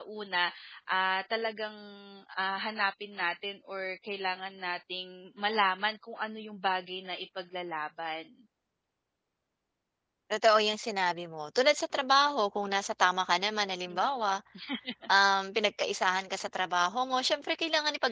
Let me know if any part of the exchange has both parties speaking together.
No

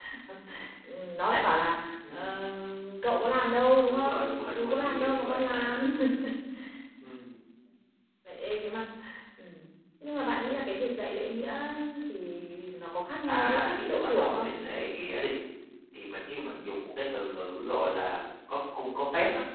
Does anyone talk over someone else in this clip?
Yes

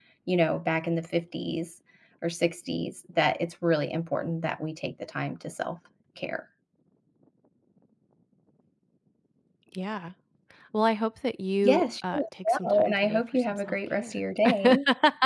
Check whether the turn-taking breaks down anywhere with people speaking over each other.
Yes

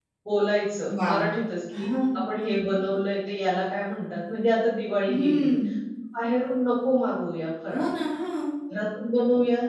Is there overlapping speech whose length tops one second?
No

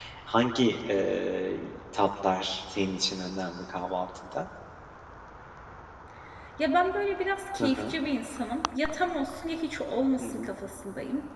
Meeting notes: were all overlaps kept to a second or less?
Yes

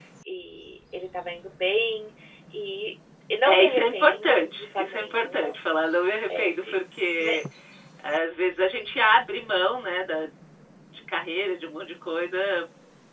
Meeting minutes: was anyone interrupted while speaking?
Yes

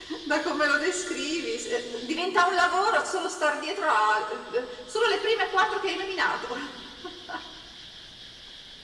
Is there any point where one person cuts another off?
No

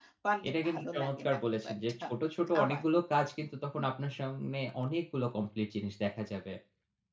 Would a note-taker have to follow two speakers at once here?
Yes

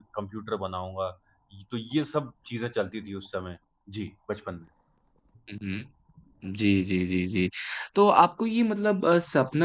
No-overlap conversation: Yes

